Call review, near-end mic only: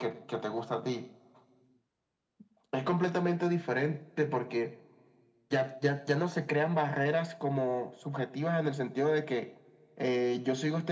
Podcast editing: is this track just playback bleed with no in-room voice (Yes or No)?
Yes